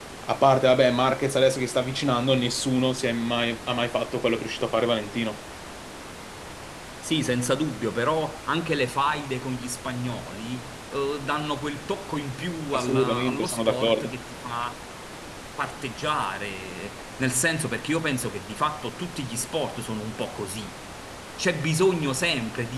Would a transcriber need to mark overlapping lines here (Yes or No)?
Yes